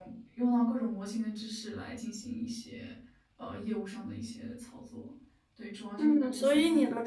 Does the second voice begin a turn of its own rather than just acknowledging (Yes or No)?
Yes